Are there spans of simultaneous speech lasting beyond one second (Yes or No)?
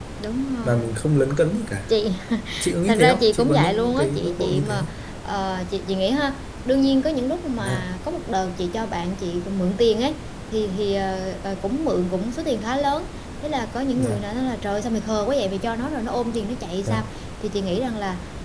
Yes